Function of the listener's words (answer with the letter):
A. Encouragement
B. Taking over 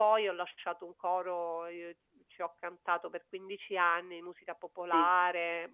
A